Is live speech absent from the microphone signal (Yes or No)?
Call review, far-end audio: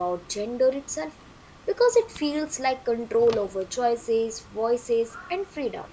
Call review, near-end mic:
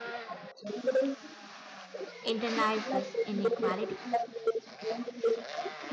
No